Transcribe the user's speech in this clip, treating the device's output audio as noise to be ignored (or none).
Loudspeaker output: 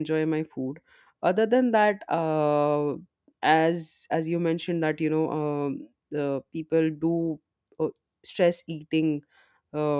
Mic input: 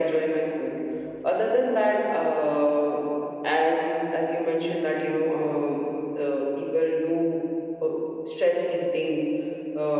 none